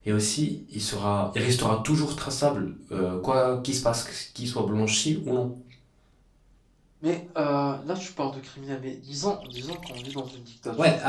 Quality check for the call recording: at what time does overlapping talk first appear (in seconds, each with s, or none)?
none